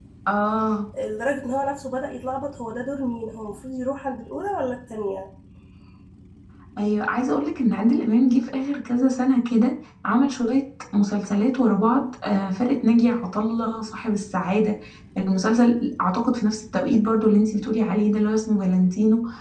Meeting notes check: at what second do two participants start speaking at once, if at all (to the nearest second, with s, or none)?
none